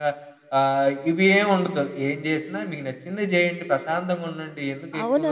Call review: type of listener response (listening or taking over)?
taking over